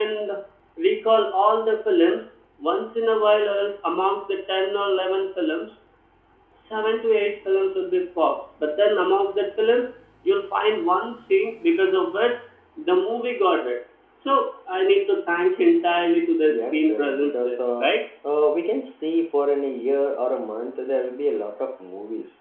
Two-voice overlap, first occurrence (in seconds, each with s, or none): 16.5 s